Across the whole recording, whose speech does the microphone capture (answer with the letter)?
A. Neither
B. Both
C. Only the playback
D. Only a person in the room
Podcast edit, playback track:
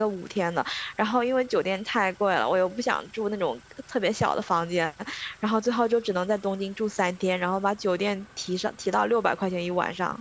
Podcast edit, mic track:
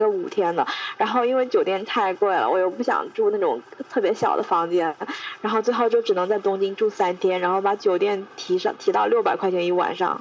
C